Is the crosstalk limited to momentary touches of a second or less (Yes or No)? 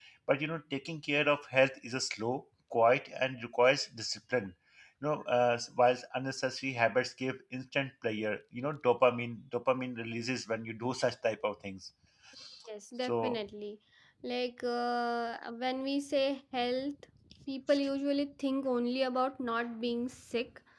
Yes